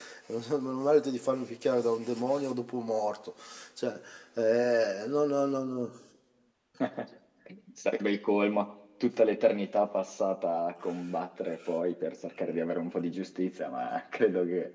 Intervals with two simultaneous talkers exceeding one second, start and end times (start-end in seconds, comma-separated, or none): none